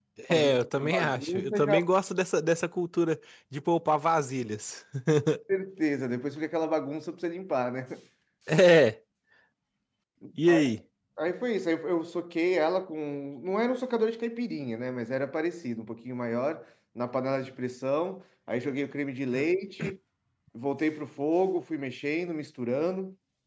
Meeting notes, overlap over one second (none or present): present